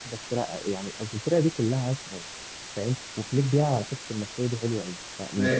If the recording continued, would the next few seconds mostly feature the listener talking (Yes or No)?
No